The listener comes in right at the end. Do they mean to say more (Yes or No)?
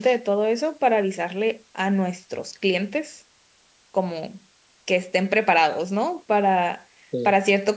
No